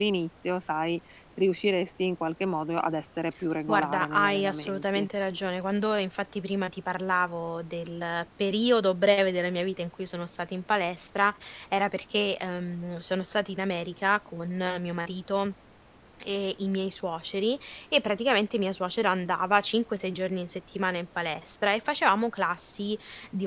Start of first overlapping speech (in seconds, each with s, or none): 3.7 s